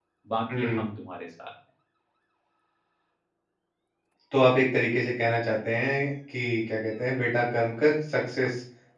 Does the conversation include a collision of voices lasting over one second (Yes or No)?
No